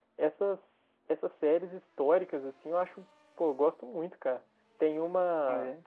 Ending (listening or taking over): listening